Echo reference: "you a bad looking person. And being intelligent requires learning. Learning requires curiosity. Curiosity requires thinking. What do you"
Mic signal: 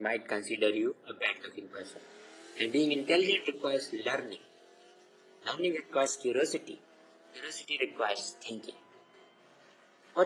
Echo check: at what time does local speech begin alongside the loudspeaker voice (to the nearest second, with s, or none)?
none